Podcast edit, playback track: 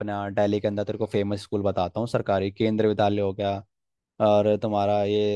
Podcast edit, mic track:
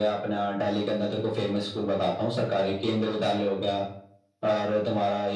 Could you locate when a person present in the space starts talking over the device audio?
none

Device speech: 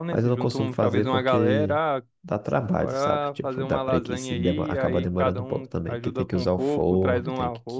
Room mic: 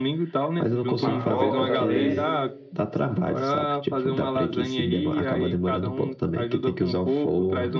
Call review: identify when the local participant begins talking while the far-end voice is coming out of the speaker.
1 s

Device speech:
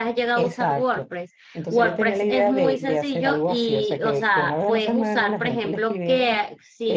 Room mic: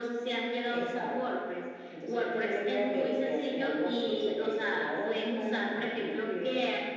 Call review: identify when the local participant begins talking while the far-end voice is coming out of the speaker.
none

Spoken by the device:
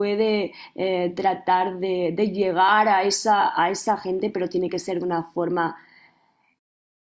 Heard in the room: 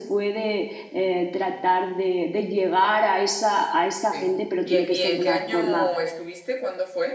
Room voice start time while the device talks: 4 s

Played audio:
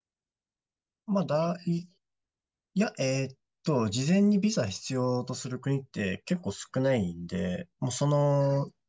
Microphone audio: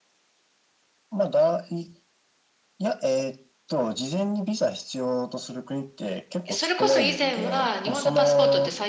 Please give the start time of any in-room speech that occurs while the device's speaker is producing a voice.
7 s

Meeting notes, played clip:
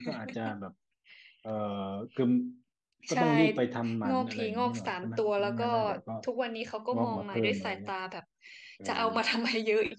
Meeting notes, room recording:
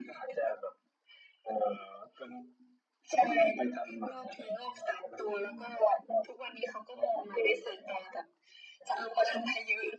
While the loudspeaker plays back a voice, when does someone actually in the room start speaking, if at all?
none

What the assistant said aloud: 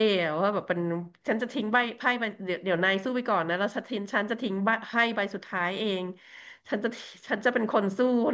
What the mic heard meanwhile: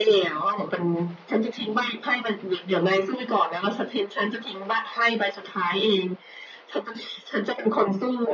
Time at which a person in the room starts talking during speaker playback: none

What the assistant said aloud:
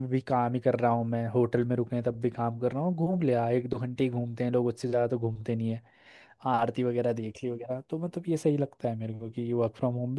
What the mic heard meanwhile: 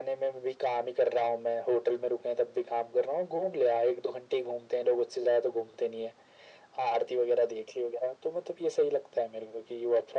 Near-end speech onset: none

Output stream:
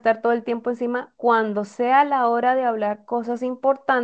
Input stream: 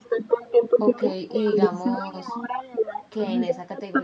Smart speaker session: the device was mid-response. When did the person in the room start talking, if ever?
1 s

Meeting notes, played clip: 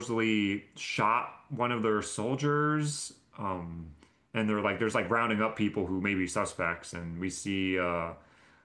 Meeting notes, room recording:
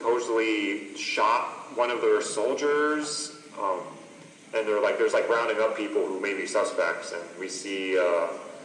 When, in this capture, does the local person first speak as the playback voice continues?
none

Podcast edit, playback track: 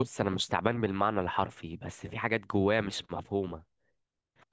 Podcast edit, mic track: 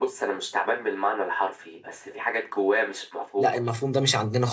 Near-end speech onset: 3 s

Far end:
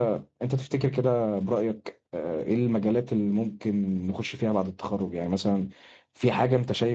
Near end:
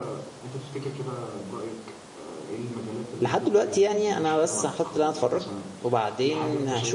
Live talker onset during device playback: 3 s

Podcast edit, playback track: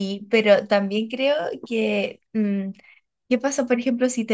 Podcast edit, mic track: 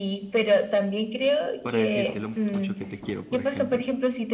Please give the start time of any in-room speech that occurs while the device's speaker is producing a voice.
2 s

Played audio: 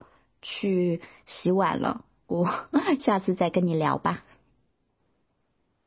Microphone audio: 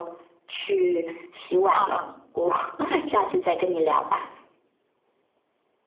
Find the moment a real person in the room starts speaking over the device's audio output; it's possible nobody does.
2 s

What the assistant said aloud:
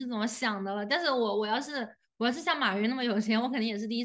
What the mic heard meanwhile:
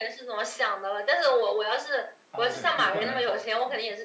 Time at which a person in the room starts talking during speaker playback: 2 s

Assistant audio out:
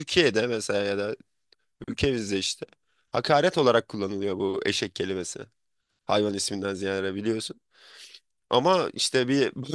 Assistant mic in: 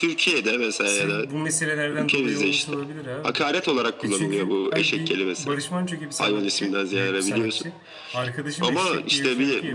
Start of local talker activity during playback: 1 s

